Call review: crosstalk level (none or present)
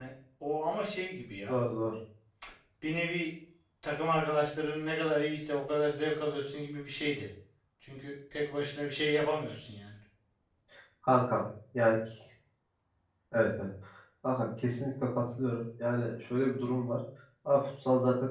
none